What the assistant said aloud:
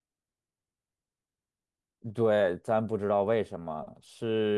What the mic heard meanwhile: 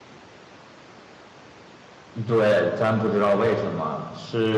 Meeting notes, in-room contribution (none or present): none